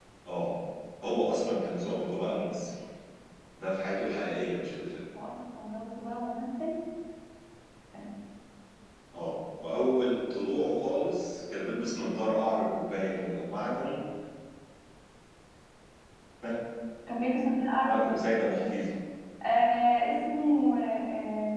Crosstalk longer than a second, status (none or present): none